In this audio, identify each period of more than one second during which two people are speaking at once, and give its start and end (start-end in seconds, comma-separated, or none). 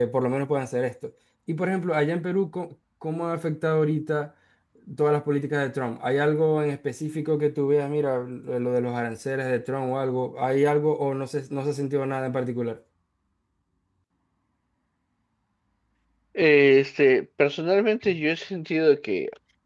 none